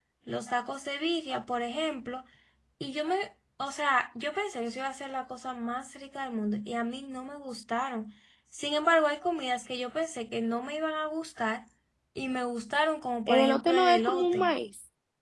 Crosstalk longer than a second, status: present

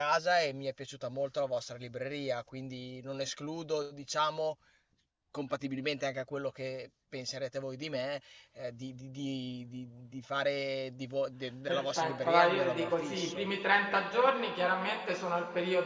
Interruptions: present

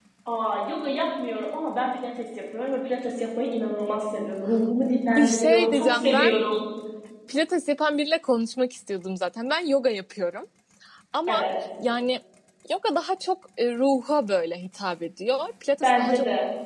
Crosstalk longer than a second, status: present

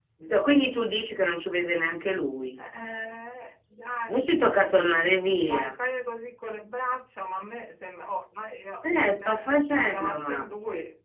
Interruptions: present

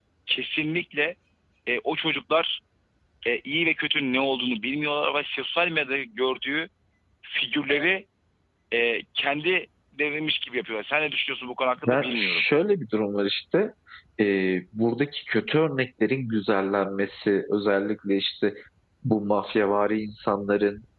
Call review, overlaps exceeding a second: none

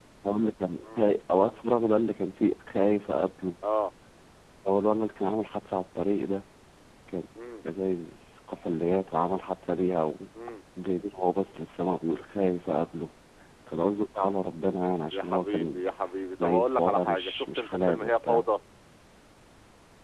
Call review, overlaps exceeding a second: present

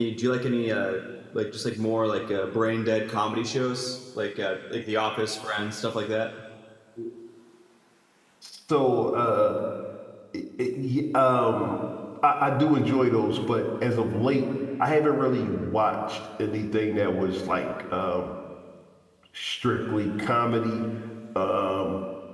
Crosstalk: none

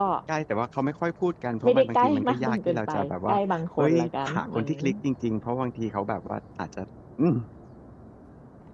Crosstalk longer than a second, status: present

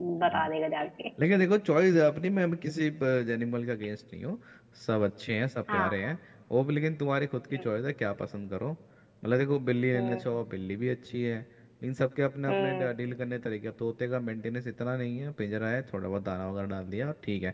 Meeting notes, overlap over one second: none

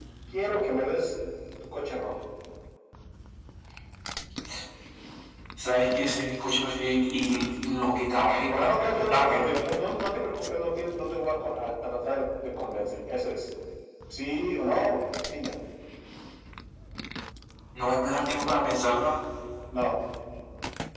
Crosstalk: present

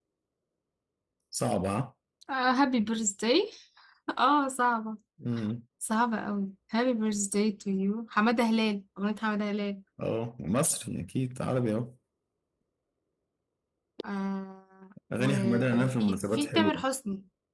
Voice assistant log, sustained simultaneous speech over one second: present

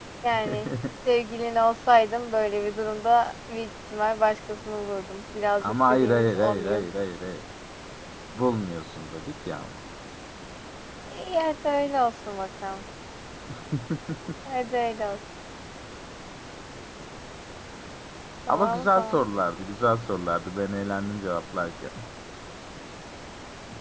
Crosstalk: present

